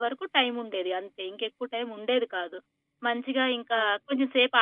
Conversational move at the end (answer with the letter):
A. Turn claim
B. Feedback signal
B